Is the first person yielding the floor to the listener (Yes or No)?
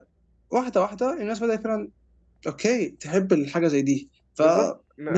Yes